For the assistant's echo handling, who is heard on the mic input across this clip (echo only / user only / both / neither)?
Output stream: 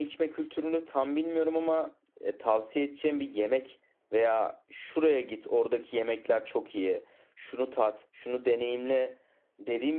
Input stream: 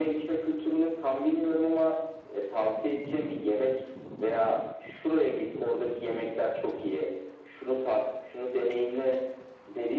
echo only